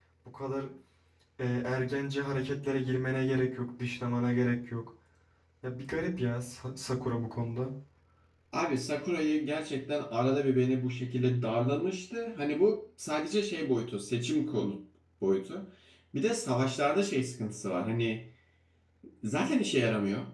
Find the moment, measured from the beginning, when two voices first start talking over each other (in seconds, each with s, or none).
none